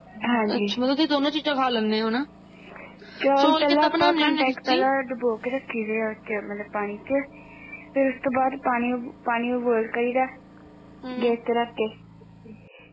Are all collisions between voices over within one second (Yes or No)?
No